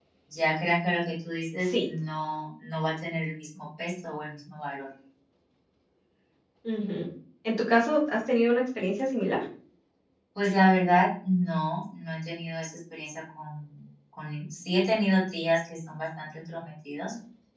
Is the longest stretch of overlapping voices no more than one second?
Yes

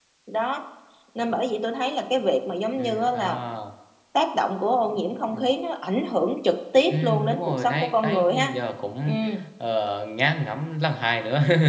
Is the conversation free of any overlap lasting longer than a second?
No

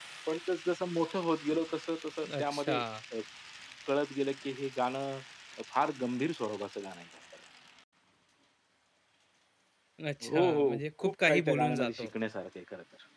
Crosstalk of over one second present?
Yes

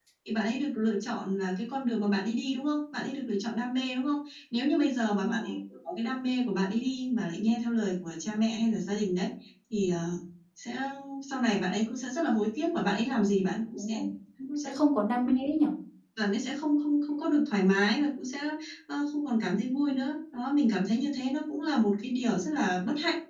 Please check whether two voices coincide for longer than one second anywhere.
No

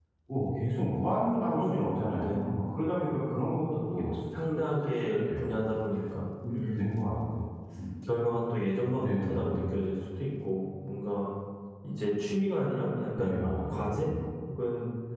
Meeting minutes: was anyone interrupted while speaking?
Yes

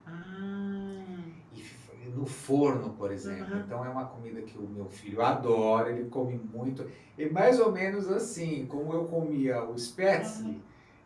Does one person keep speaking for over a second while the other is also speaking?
No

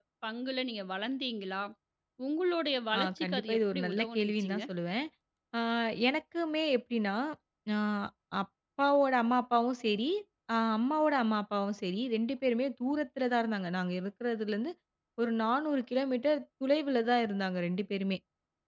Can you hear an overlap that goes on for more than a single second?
Yes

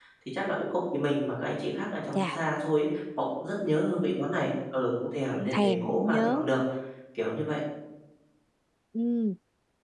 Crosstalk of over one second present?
Yes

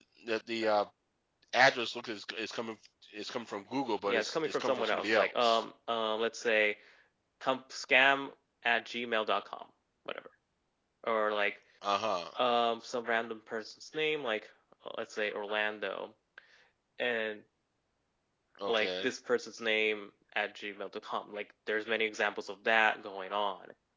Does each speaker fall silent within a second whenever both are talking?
No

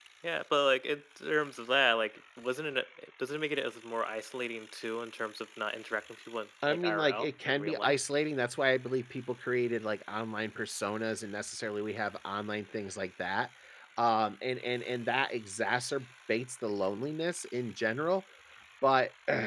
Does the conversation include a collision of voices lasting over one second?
Yes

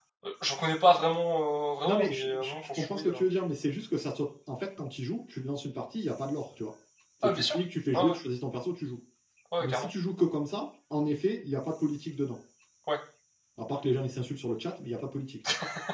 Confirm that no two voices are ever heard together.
No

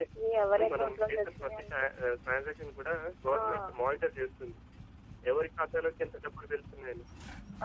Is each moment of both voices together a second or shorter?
No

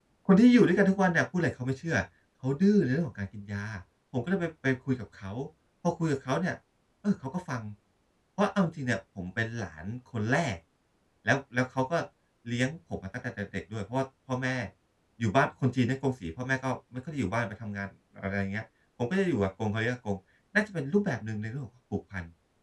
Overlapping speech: No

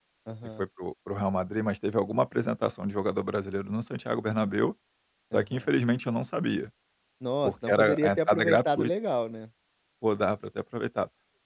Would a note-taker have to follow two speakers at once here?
Yes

